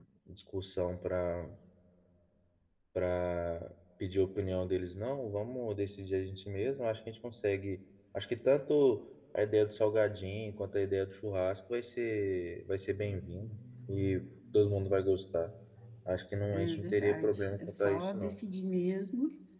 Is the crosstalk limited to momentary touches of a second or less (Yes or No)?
No